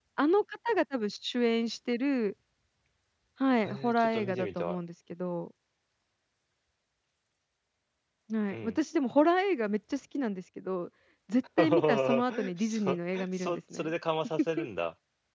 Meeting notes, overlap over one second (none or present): present